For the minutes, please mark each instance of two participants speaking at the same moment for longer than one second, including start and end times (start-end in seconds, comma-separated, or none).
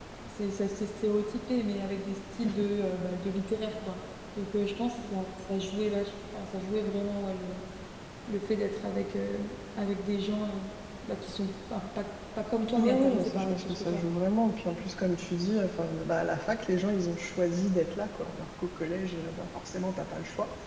12.8-14.2